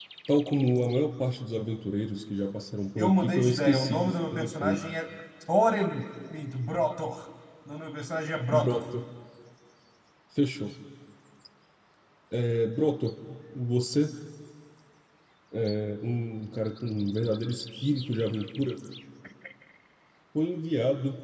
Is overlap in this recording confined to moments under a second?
No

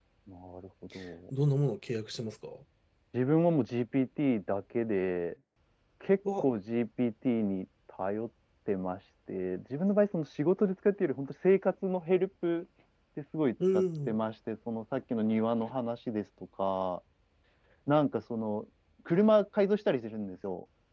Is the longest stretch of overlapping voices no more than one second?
Yes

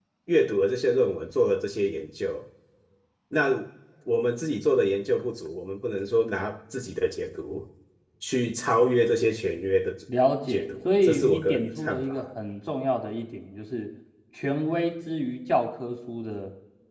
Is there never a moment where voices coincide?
No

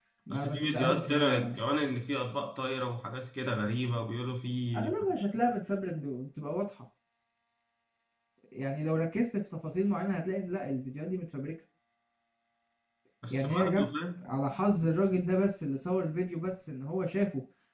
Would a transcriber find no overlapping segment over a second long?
No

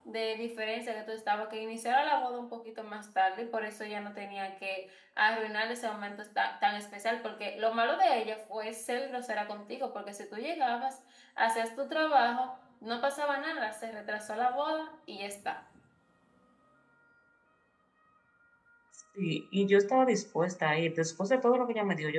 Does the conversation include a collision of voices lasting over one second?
No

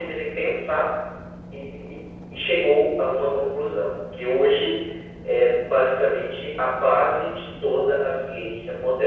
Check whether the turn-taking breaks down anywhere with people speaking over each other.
No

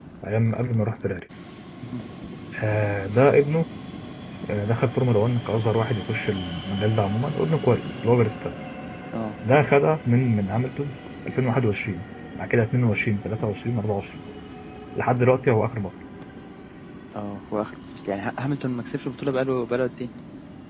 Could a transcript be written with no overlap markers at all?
Yes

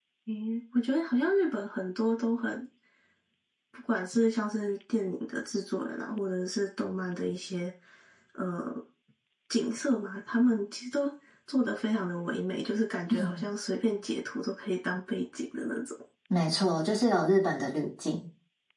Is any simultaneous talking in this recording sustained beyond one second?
No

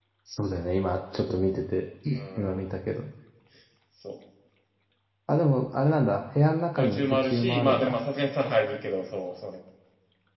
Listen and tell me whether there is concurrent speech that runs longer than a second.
Yes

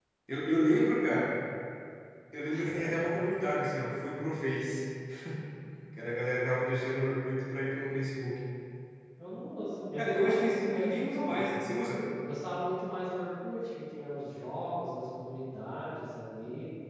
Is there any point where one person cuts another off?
Yes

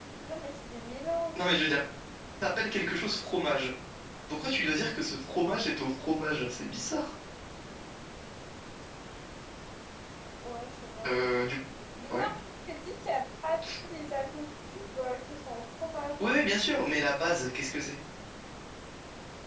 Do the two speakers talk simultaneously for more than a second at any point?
No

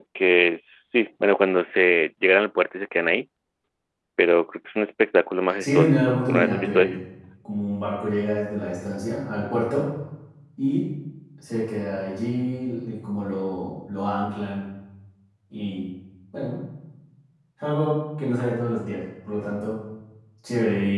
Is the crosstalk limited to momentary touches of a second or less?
No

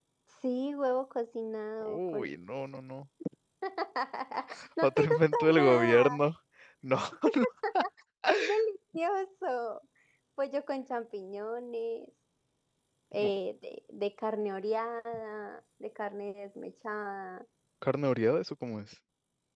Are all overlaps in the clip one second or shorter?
No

